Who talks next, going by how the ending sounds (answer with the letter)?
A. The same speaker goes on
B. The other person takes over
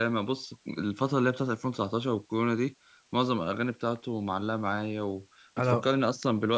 A